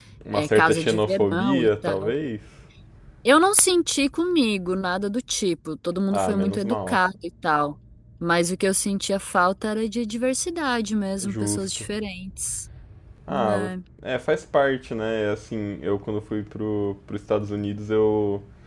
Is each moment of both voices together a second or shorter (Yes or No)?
No